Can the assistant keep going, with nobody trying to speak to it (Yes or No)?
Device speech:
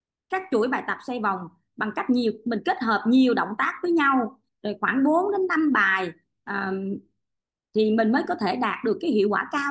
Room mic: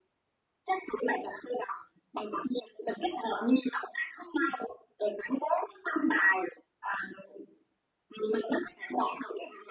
Yes